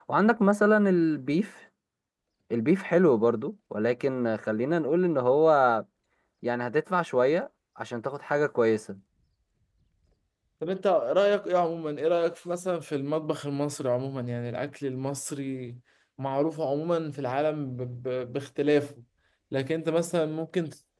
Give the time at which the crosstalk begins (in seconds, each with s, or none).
none